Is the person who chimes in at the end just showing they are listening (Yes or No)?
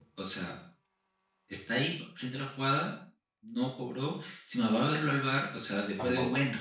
Yes